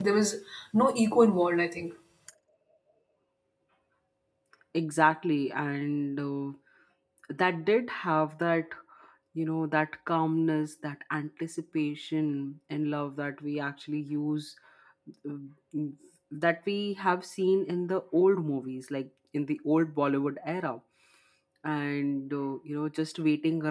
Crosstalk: none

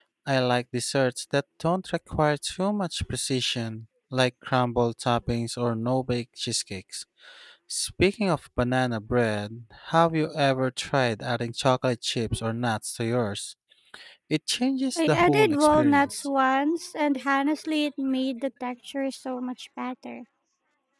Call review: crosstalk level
present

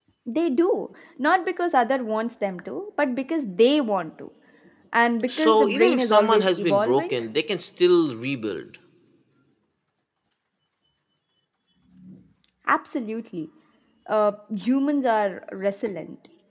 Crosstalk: present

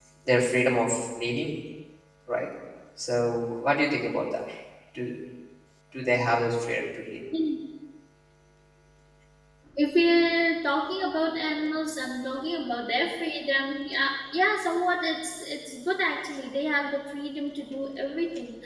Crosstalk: none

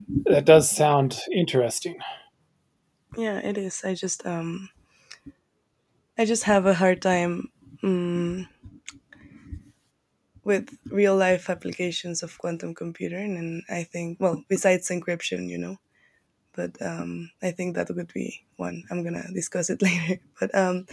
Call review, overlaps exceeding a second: none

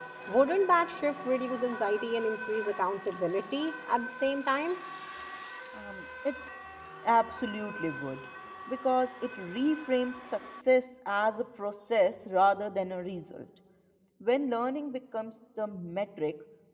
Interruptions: none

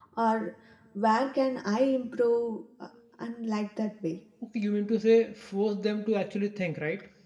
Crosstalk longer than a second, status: none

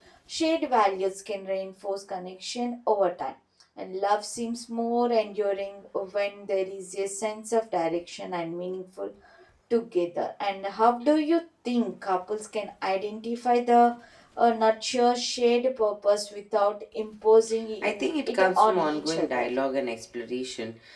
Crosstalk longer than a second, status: present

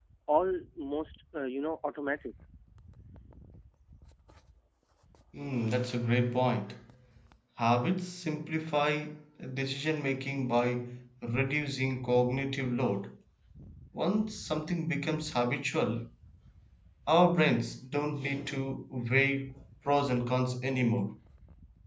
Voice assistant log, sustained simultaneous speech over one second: none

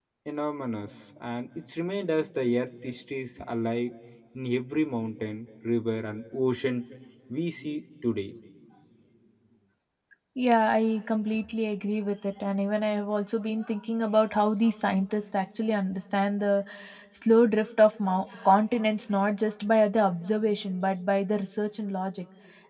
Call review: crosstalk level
none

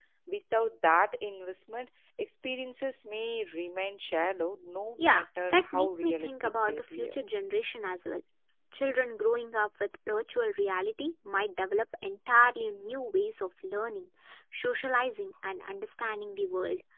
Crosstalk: present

